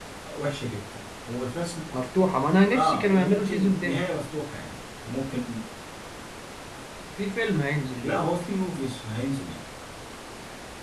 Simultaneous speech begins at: 3 s

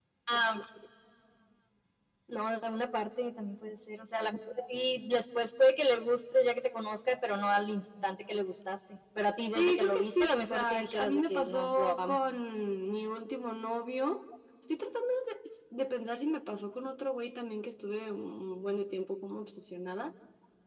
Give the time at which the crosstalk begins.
10 s

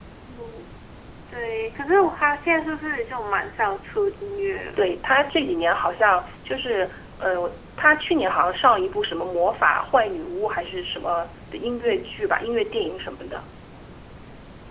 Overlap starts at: none

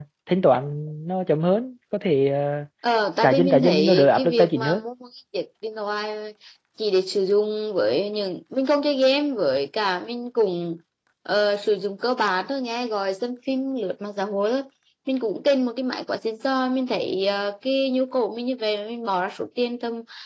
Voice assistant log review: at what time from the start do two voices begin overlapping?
3 s

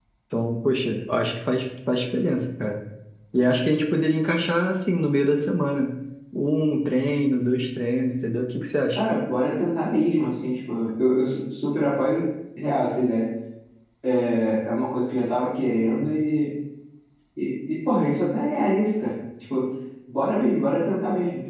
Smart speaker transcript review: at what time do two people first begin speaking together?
none

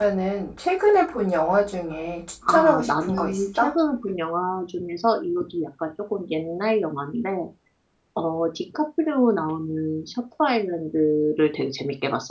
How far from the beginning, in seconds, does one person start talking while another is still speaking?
2 s

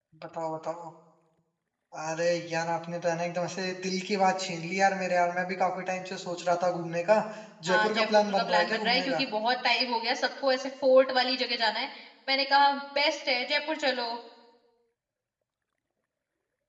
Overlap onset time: 8 s

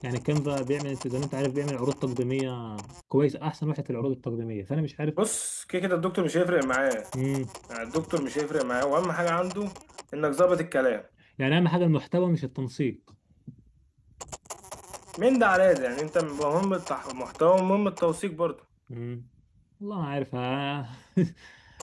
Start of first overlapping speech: none

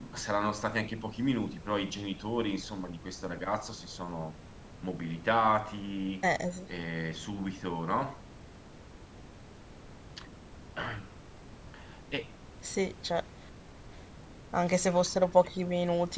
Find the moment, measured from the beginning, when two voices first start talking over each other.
none

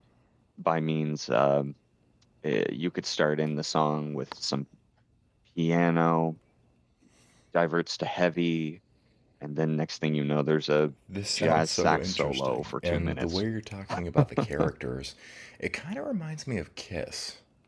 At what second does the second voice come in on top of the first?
11 s

